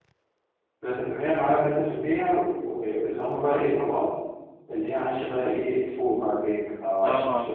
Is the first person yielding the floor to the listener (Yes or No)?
No